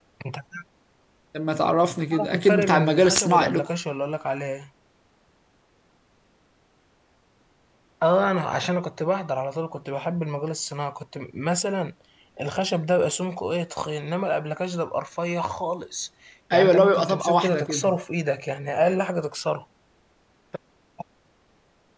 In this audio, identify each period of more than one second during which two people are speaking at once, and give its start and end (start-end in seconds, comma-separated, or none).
2.1-3.7, 16.5-18.0